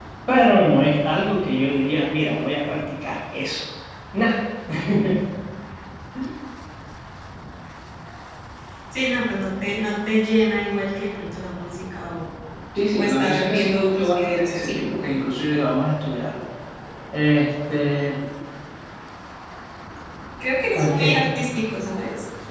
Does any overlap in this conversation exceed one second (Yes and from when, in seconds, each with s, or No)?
Yes, from 12.9 s